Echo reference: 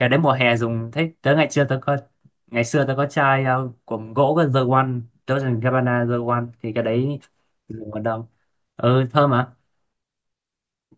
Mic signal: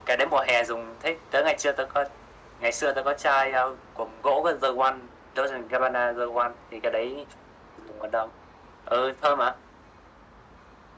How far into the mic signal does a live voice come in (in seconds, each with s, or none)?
none